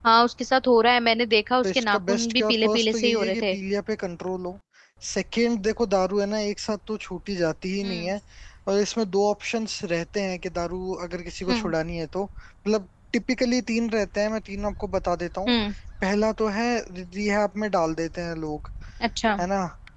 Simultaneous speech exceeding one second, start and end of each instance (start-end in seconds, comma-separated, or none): 1.6-3.5